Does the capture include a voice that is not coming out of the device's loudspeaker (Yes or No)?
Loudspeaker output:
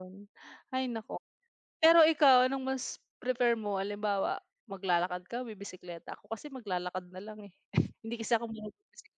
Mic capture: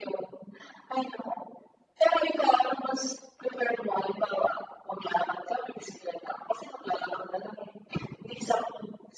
No